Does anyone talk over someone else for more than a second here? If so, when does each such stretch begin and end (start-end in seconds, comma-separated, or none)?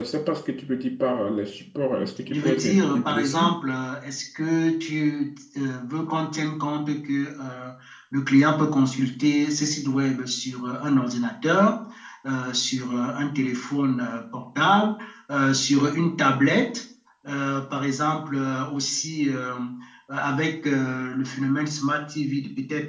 2.3-3.6